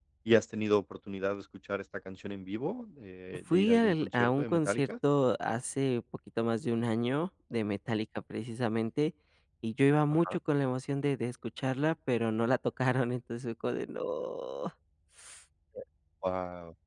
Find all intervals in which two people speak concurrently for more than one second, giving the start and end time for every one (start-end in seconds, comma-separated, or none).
3.5-4.9